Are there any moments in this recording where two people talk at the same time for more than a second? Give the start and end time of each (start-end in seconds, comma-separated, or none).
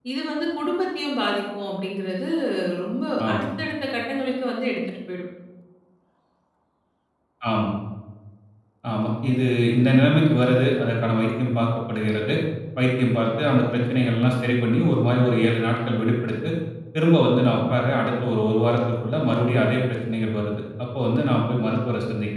none